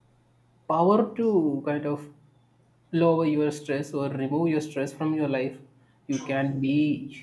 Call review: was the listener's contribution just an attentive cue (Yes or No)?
Yes